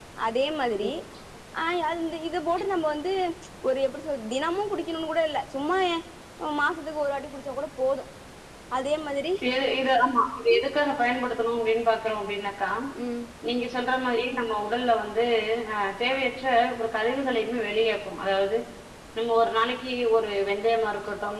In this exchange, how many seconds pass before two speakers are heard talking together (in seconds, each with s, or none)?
none